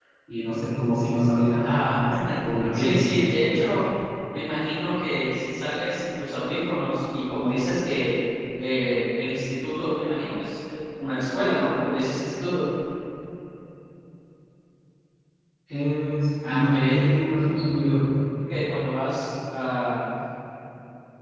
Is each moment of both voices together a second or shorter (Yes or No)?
Yes